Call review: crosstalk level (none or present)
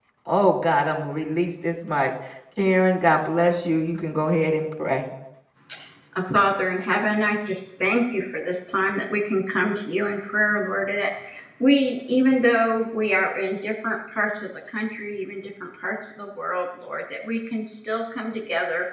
none